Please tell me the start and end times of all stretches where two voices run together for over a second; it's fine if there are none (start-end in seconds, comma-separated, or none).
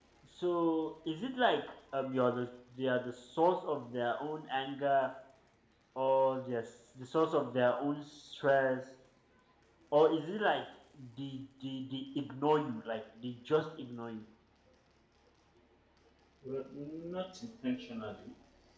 none